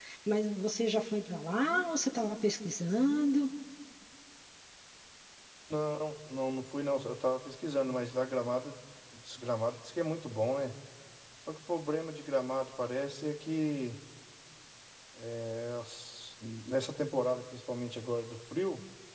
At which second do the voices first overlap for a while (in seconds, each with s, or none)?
none